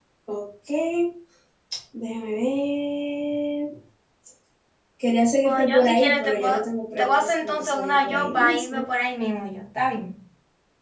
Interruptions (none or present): present